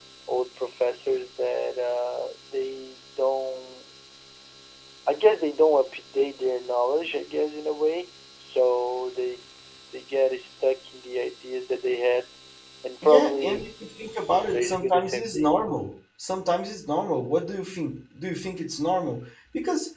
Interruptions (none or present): present